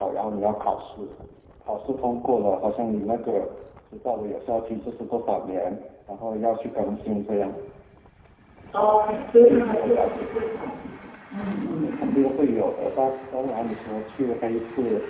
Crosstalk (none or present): present